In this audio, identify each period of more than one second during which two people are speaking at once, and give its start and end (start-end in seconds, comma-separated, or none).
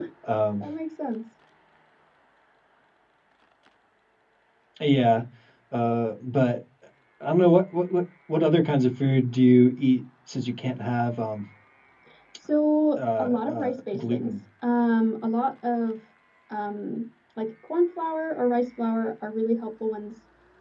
13.0-14.3